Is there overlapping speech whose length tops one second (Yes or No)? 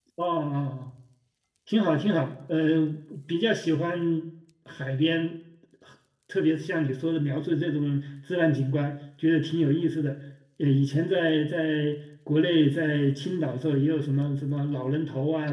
No